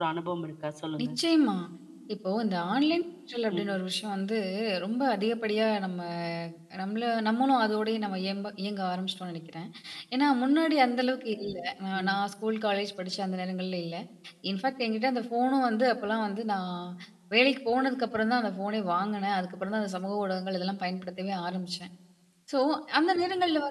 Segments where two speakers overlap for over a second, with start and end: none

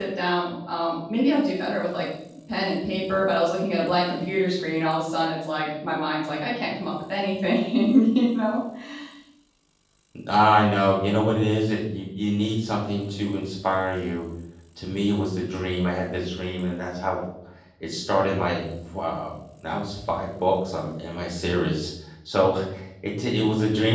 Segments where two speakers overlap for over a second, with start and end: none

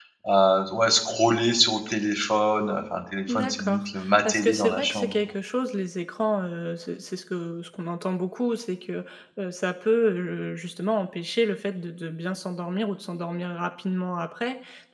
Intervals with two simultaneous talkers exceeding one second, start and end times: 3.3-5.1

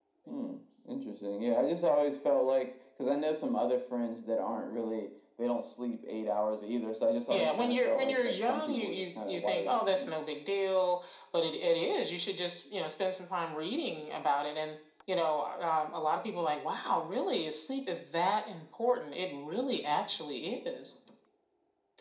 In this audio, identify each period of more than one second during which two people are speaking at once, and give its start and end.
7.3-10.1

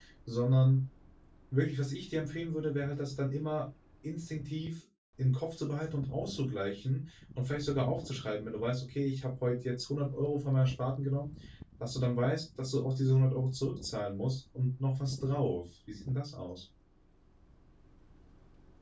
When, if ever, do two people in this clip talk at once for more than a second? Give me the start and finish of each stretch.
none

